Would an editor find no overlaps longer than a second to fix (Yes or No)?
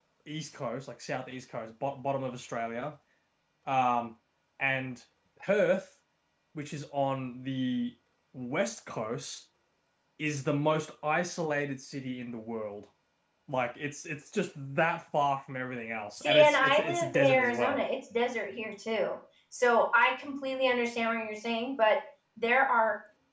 No